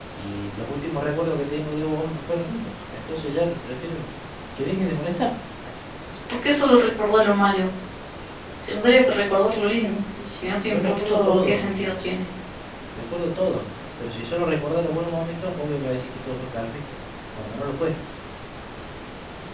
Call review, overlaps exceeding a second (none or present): present